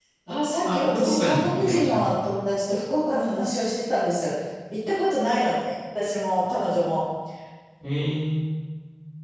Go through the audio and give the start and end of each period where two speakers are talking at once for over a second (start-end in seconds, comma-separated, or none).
0.6-2.0